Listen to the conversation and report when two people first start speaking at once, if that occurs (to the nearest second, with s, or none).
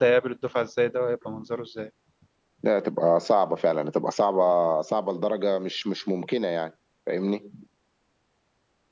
none